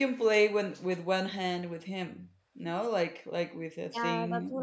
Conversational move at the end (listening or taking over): taking over